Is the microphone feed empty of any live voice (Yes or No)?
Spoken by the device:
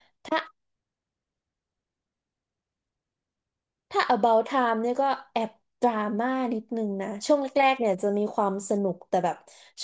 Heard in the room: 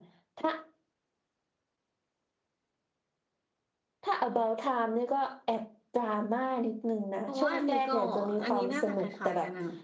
No